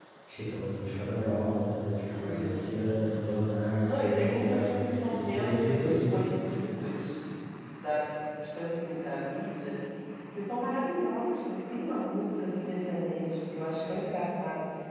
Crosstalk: present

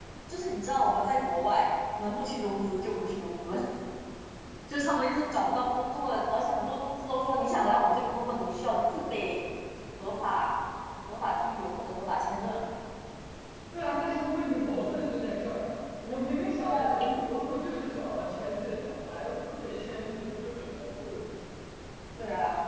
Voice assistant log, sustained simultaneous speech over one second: none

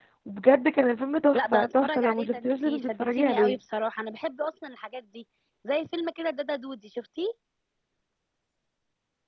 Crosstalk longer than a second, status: present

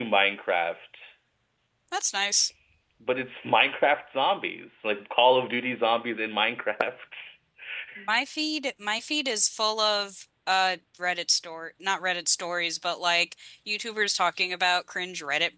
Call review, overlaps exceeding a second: none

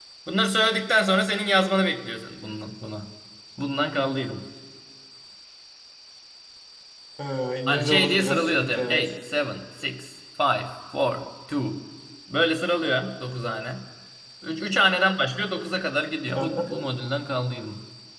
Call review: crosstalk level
present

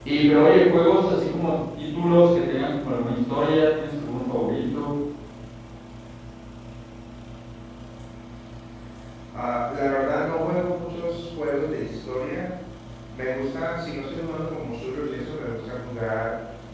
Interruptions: none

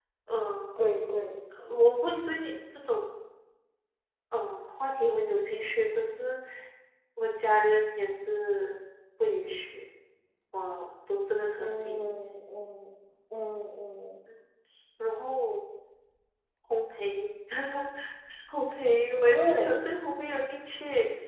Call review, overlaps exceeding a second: none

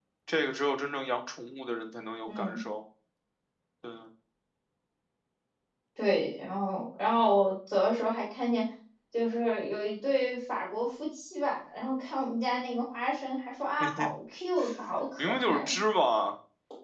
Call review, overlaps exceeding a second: none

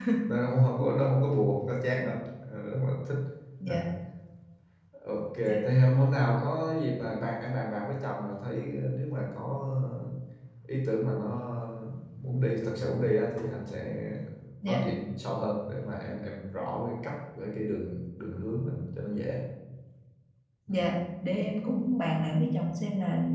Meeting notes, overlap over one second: none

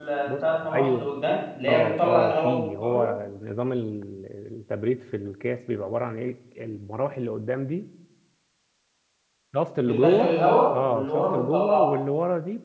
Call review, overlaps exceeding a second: present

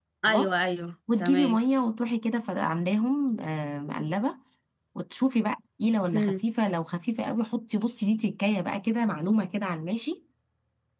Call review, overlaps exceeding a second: none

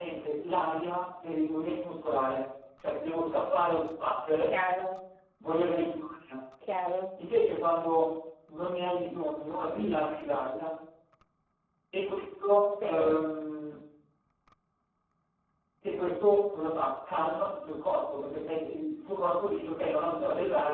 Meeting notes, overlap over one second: none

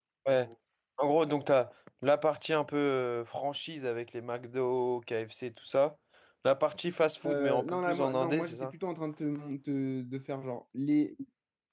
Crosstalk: present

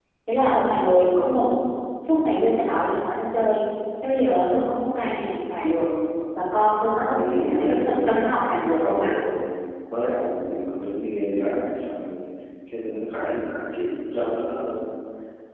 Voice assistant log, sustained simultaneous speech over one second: present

